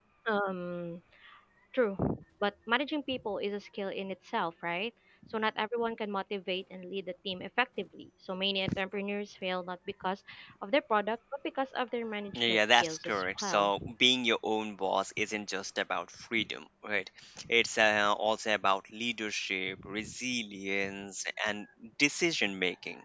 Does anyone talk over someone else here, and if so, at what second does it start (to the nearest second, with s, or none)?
12 s